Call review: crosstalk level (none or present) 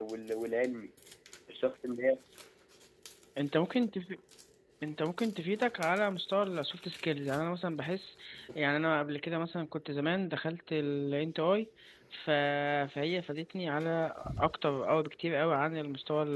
none